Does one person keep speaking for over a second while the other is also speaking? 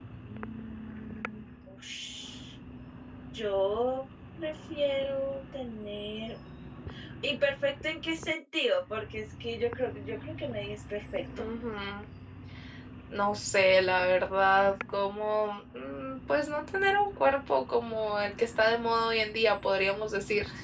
No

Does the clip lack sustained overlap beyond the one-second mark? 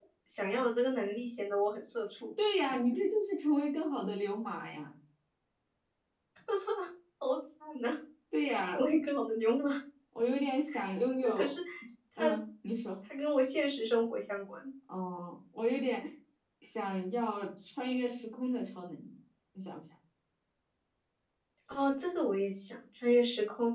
Yes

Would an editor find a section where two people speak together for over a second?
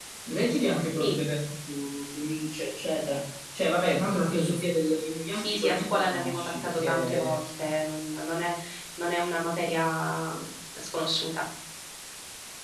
Yes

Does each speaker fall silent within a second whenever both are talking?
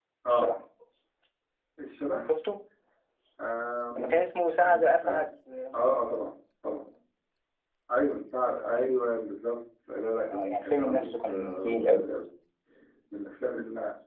No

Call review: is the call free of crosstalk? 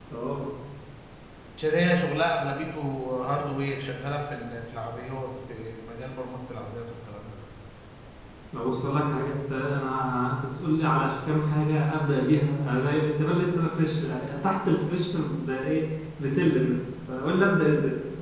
Yes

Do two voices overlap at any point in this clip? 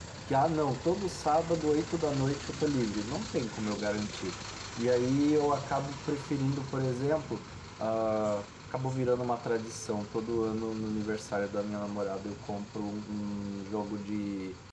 No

